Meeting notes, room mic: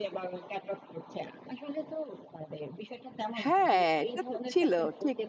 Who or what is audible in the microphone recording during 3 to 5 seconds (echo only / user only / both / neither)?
both